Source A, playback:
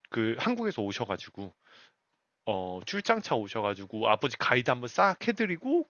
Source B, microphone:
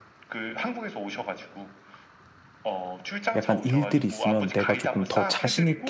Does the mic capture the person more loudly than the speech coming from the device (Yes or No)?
Yes